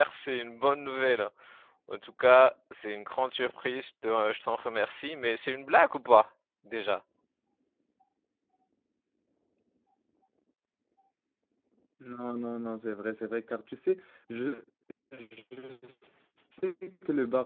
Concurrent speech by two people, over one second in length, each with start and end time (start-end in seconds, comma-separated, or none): none